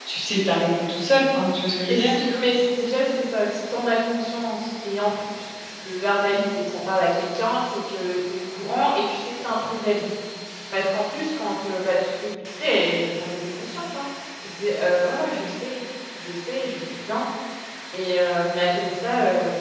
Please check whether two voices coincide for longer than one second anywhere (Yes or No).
No